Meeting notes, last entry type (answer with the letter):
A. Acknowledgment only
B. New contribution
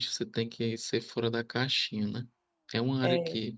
A